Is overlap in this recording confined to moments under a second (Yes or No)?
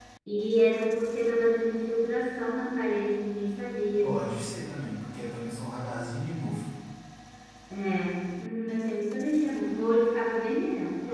Yes